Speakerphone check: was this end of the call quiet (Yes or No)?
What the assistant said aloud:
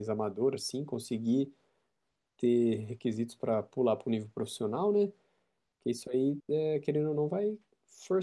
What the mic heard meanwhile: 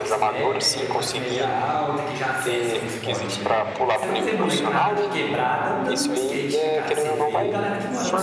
No